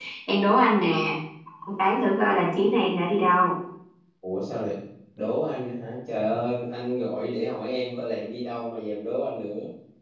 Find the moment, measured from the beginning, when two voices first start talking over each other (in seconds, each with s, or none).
none